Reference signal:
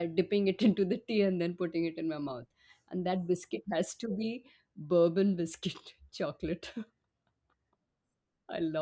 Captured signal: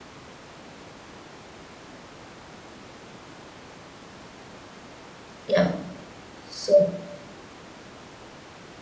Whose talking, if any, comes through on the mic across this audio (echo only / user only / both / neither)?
user only